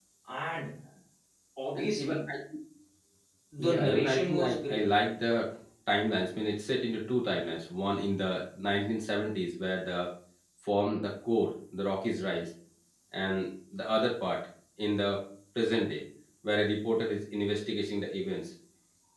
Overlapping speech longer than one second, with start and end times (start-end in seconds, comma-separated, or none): 3.6-4.8